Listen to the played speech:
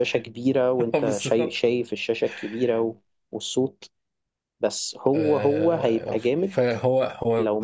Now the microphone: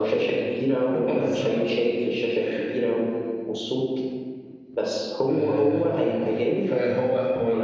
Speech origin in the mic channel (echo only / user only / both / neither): echo only